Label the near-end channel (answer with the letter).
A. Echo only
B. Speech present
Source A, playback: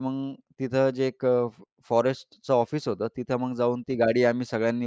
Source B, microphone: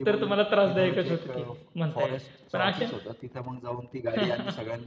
B